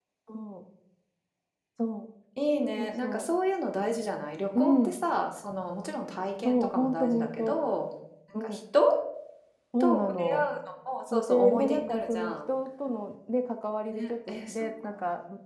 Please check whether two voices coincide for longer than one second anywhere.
Yes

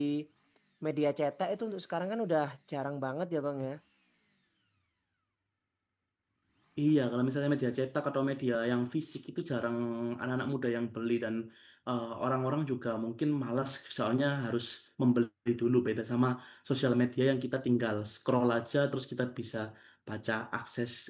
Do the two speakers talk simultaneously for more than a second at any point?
No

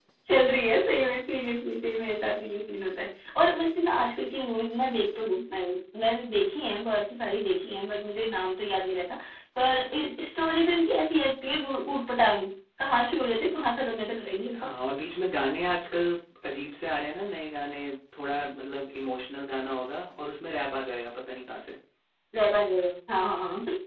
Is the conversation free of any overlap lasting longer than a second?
Yes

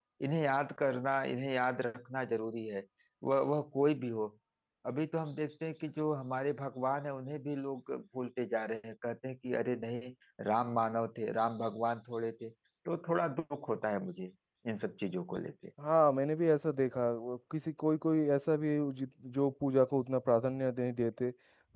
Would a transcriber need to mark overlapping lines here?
No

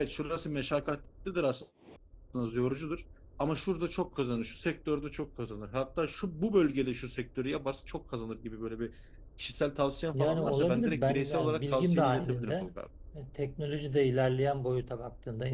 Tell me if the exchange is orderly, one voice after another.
No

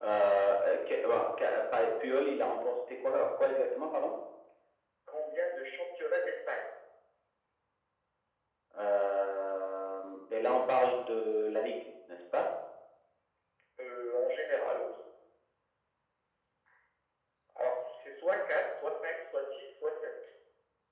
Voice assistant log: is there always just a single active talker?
Yes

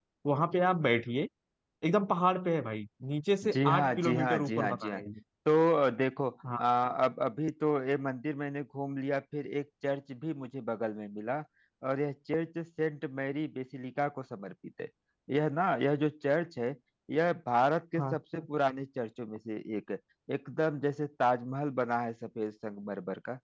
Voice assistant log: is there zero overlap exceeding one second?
No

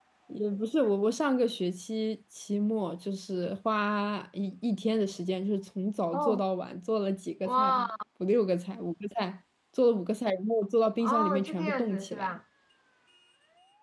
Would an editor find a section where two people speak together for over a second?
Yes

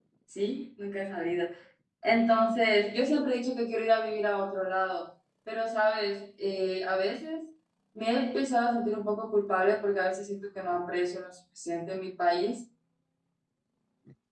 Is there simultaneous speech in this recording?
No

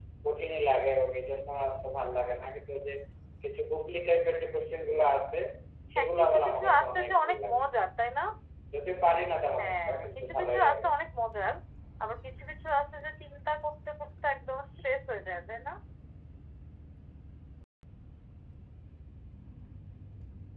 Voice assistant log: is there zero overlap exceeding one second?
No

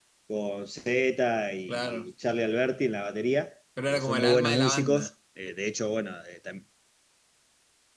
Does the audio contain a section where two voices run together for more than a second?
Yes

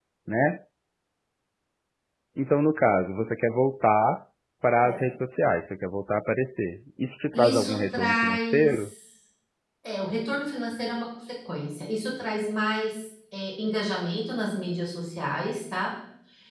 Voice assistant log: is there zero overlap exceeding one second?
No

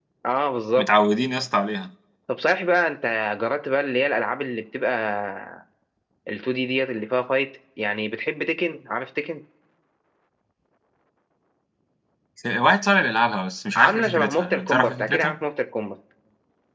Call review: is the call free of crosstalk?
No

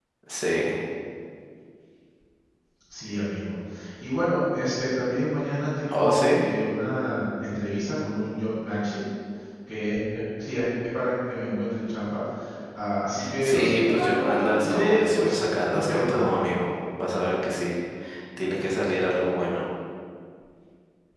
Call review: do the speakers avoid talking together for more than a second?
No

